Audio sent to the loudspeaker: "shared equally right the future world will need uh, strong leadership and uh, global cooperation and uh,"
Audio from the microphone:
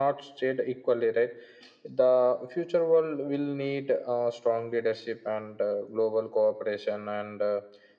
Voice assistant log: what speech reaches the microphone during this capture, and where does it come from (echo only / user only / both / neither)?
echo only